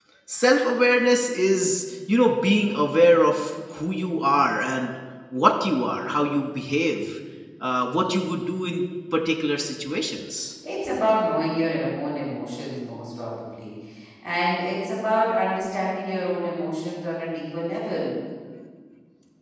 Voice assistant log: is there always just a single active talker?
Yes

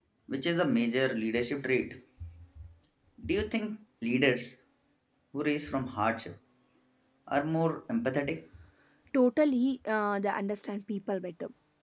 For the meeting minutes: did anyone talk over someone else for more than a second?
No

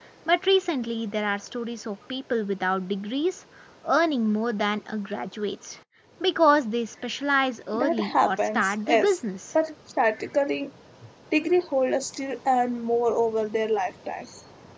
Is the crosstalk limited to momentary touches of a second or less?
No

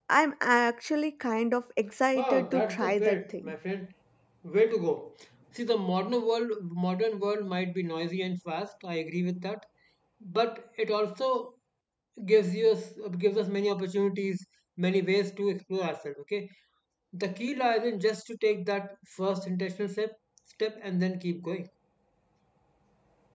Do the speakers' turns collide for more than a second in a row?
Yes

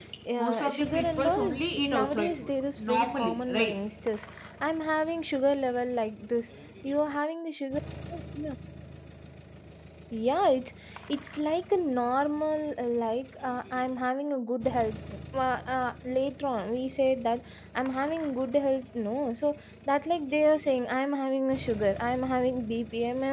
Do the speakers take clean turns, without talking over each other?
No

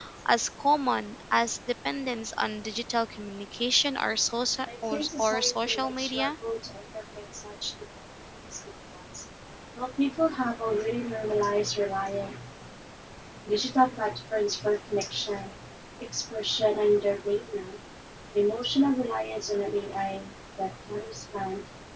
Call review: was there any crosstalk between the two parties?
Yes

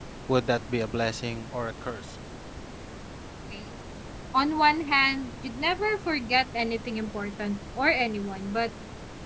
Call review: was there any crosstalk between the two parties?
No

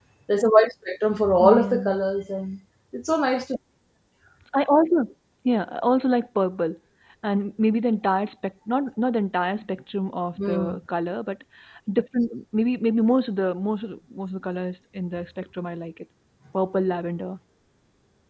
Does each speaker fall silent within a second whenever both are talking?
Yes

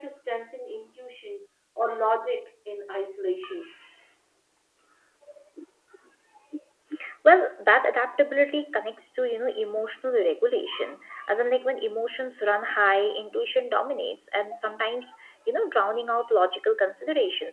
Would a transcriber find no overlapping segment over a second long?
Yes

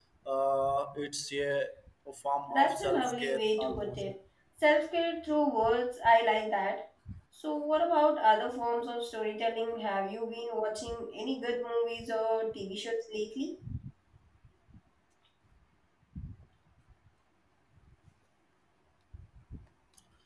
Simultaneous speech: Yes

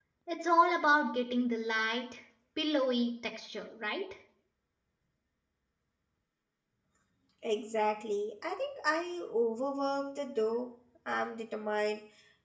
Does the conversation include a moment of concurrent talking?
No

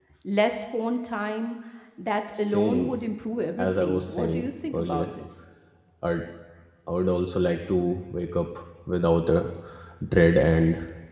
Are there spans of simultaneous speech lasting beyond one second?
Yes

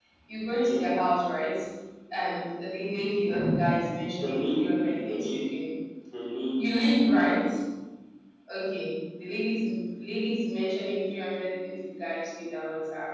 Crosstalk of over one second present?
Yes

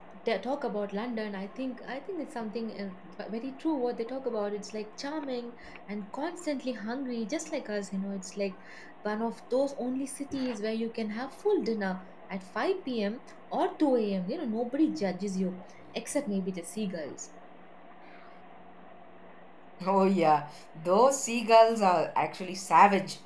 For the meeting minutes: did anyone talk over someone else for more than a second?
No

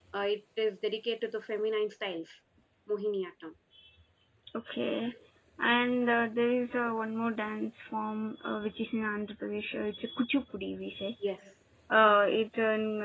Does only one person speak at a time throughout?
Yes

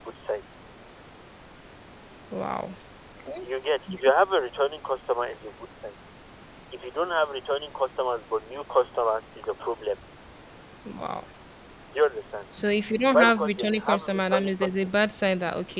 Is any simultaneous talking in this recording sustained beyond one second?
Yes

